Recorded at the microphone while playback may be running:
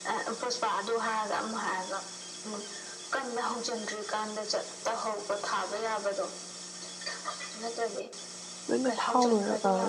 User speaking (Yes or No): Yes